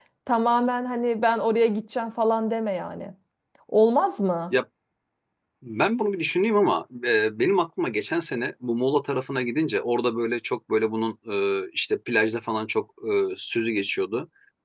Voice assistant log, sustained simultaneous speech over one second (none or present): none